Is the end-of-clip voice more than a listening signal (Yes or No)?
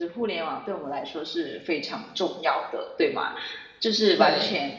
No